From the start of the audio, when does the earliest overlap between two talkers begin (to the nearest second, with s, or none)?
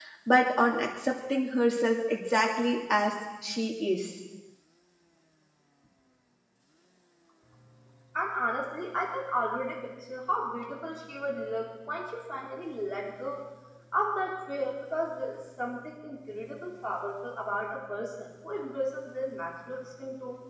none